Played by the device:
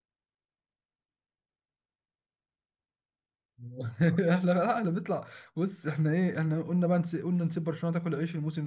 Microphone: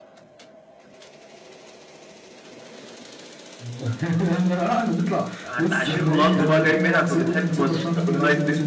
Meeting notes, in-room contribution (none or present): present